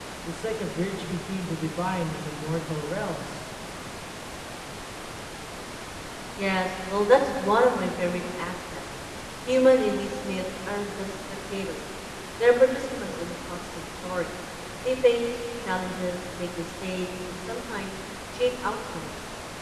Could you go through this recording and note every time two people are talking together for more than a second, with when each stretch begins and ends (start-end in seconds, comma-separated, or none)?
none